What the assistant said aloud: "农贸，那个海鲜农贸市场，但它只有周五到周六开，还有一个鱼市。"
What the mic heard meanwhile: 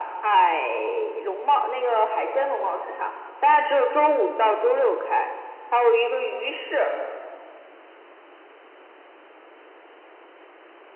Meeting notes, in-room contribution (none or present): none